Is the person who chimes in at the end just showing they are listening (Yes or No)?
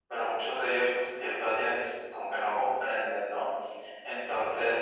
Yes